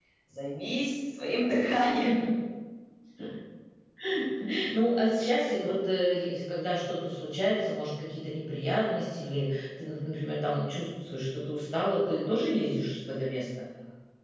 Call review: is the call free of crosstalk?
Yes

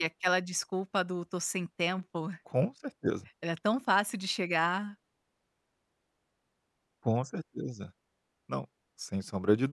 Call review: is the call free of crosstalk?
Yes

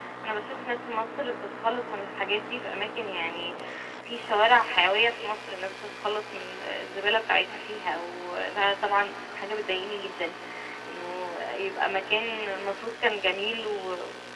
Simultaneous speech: No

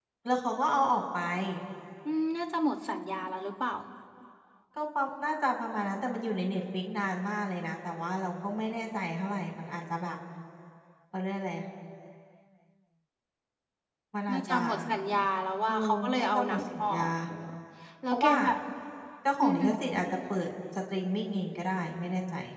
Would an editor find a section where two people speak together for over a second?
Yes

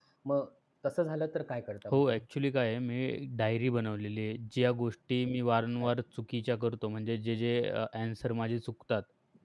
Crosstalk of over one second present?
No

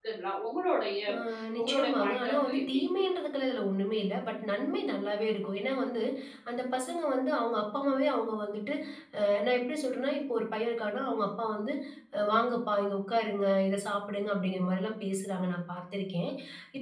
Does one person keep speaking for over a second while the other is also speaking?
Yes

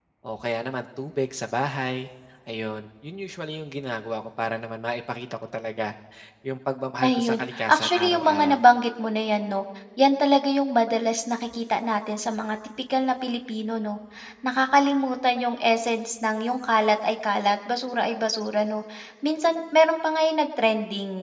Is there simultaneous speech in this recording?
Yes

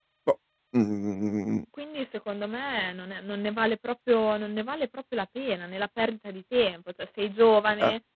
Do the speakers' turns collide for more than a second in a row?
No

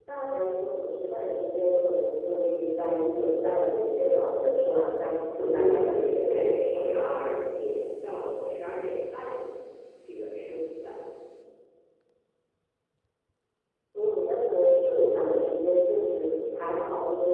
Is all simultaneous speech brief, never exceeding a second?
No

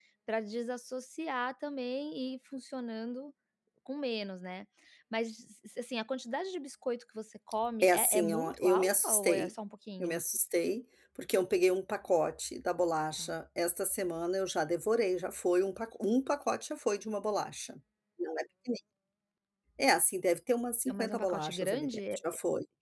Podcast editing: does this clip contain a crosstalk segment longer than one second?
Yes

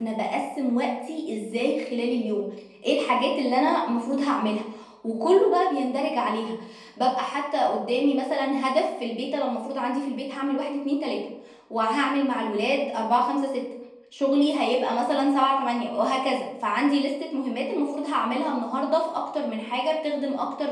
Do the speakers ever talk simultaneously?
No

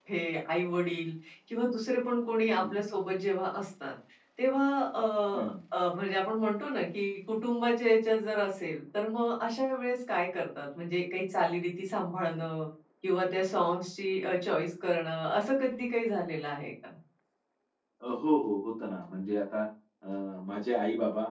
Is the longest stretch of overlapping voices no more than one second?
Yes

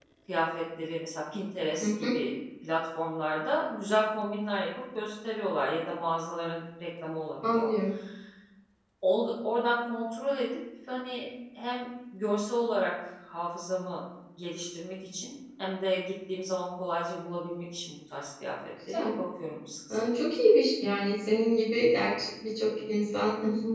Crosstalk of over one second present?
No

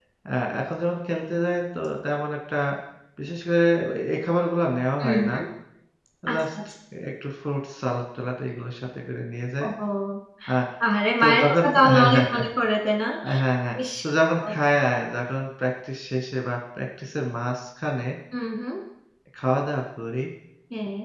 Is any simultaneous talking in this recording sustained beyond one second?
Yes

